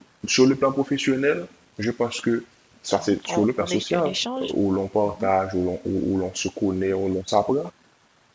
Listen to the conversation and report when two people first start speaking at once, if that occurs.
3.1 s

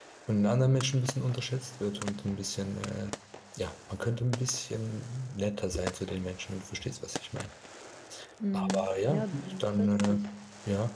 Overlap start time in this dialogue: 8.5 s

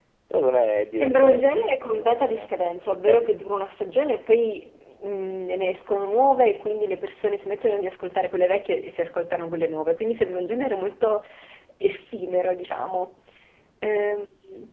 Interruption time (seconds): 0.9 s

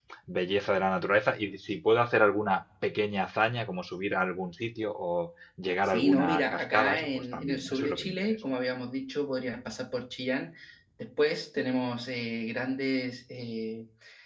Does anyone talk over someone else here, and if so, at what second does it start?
5.8 s

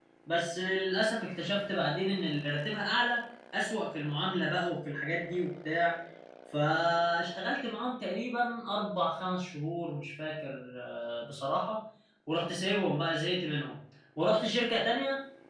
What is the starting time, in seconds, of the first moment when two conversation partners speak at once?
none

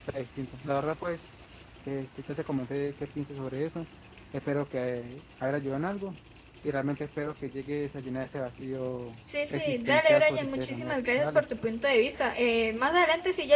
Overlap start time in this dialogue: 9.3 s

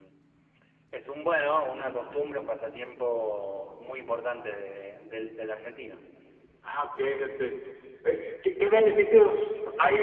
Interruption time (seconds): none

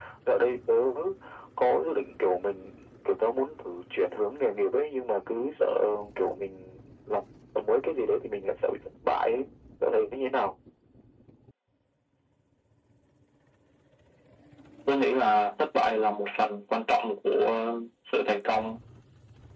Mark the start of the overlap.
none

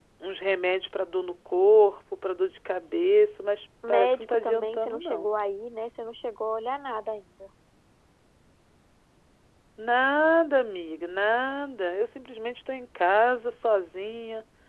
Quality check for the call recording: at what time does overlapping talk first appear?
3.8 s

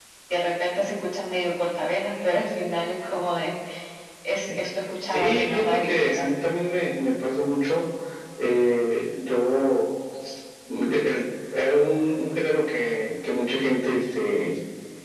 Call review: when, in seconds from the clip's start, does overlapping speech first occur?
5.1 s

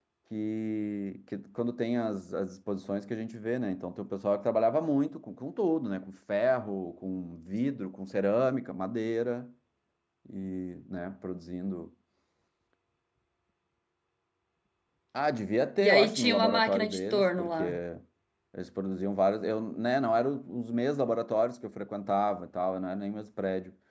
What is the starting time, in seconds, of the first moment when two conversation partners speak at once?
15.8 s

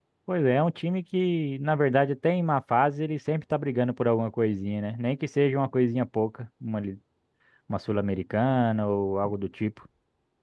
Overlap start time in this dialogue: none

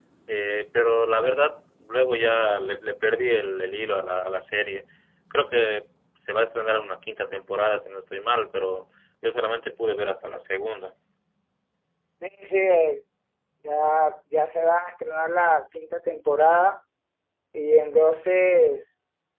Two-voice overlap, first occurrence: none

